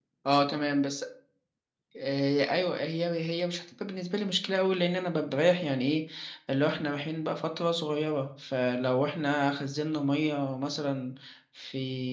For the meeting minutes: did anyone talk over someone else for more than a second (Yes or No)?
No